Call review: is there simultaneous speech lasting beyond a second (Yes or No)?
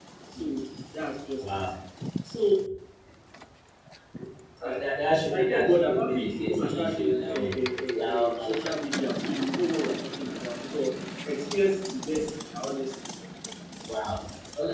Yes